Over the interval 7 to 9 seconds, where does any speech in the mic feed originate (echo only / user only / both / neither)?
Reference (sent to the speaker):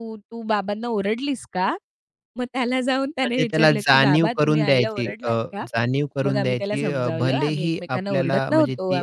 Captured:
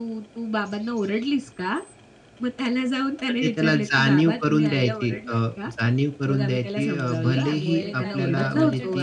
both